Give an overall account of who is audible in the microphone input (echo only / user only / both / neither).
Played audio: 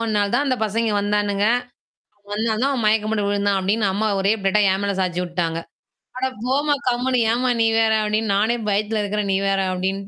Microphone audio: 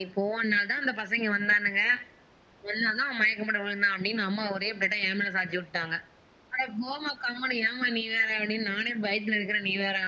echo only